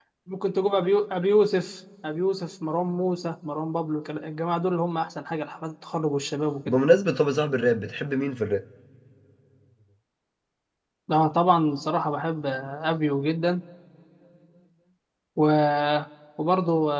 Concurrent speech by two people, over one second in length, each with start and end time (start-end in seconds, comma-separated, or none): none